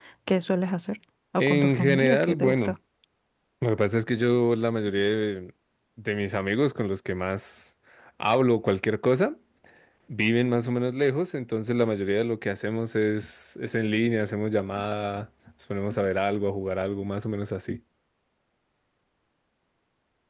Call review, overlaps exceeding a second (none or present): present